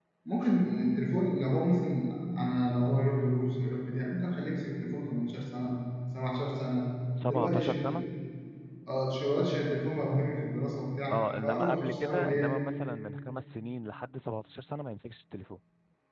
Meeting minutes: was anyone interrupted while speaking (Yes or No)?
Yes